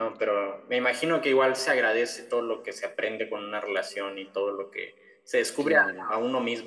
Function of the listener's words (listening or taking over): listening